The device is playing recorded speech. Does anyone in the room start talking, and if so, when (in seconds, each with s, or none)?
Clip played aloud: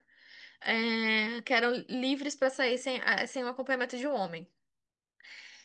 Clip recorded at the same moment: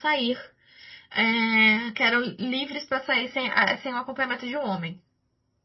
none